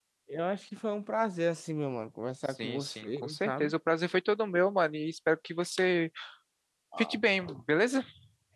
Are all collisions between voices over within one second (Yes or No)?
No